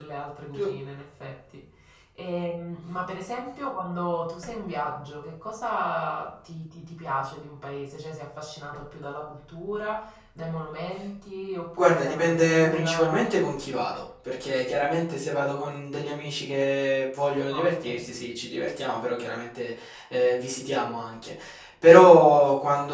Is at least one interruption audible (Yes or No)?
Yes